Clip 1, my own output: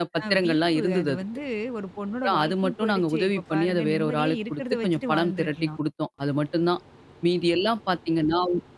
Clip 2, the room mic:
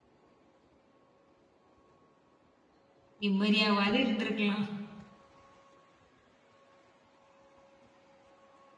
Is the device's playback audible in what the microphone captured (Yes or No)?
No